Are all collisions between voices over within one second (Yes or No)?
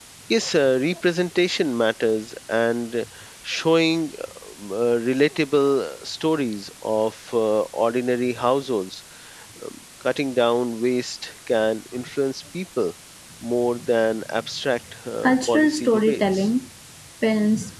No